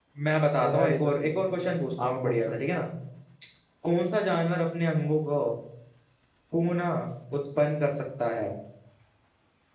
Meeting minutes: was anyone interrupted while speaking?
Yes, from 0.6 s

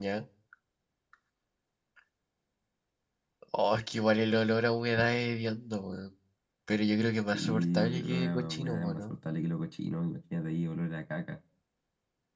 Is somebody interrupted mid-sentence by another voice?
Yes, from 7.3 s

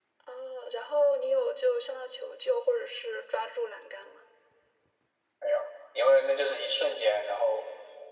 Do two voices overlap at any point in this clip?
No

